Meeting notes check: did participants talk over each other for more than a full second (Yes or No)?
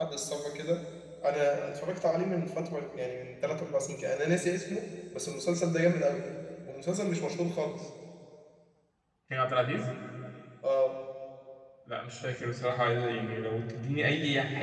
No